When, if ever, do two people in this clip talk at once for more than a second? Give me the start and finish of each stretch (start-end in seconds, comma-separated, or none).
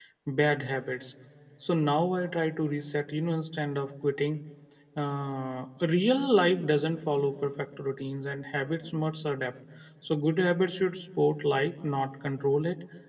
none